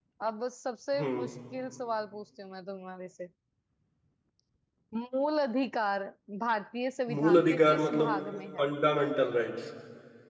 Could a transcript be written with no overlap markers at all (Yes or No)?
No